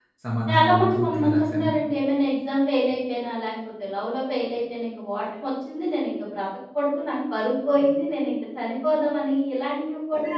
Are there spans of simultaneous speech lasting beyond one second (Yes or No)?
Yes